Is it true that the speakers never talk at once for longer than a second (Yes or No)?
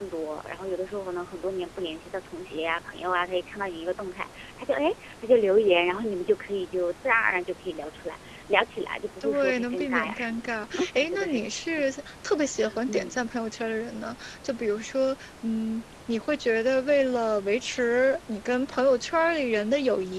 No